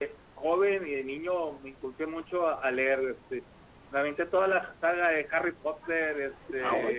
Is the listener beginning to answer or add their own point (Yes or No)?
No